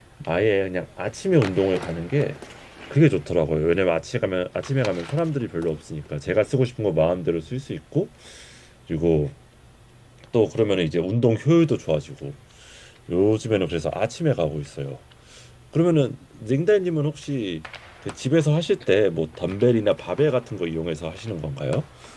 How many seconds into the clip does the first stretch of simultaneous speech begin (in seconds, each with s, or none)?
none